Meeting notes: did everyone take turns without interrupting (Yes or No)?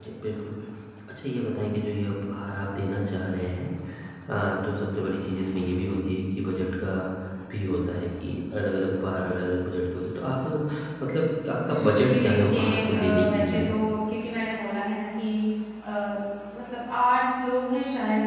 No